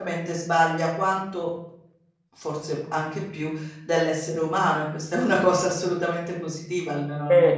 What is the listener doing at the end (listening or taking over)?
taking over